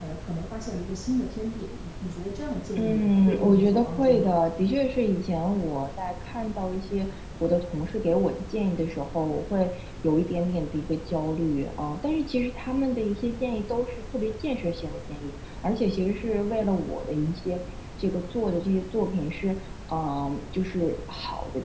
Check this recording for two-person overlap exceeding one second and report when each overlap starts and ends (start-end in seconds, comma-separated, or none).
2.8-4.3